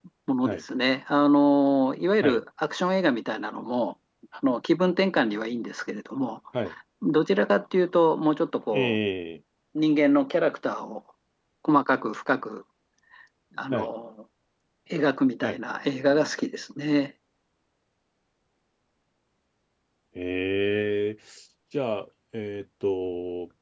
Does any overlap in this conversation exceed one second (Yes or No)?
No